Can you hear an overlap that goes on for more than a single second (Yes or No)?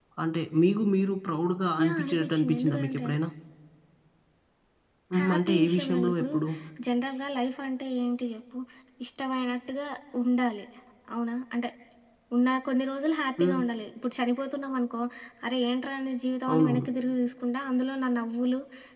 Yes